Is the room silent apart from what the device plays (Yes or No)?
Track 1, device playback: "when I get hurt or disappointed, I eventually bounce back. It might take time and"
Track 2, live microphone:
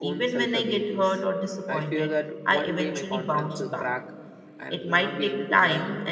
No